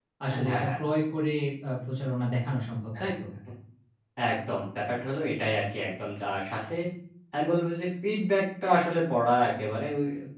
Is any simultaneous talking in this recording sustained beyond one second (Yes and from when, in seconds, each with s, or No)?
No